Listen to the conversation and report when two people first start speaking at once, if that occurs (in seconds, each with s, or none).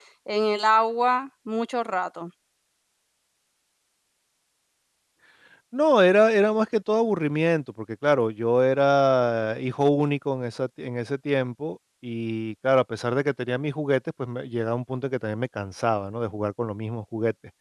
none